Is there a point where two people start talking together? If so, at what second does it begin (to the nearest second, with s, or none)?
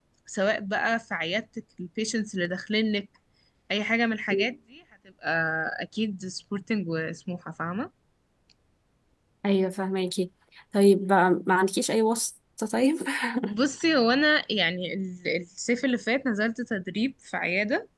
none